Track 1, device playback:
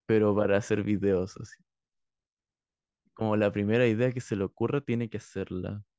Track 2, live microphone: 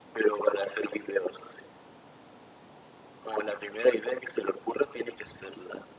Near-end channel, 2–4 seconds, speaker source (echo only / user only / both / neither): echo only